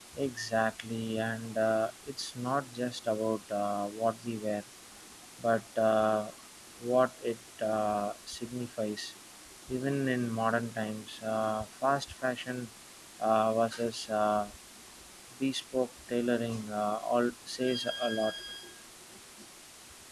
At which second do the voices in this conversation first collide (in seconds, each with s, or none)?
none